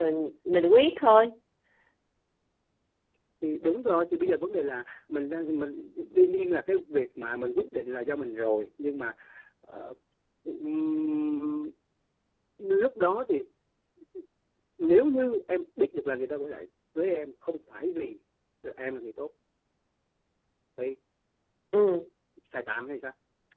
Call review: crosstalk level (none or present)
none